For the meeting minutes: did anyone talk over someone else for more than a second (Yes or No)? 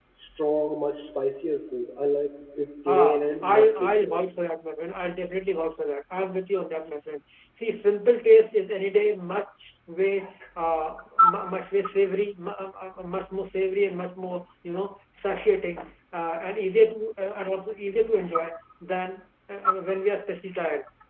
Yes